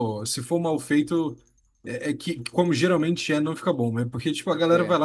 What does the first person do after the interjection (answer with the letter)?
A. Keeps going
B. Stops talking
A